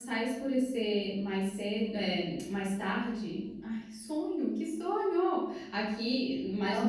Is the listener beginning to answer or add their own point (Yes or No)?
No